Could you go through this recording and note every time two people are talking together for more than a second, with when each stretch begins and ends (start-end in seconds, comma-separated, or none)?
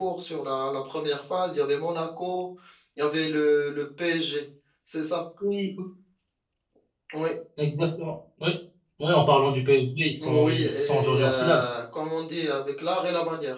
10.2-11.6